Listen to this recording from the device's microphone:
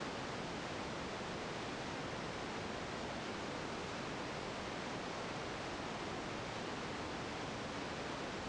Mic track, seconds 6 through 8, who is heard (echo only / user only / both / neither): neither